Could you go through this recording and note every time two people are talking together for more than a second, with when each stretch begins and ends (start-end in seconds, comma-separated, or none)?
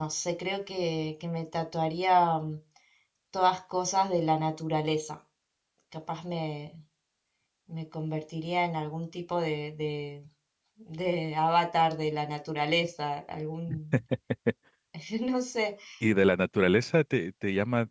none